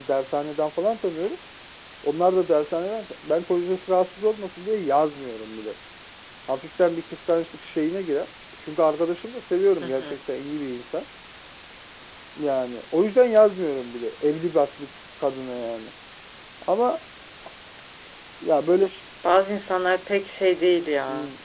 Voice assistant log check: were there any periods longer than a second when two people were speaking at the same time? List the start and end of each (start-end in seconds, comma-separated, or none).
none